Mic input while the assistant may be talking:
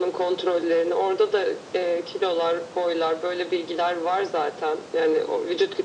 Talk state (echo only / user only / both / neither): echo only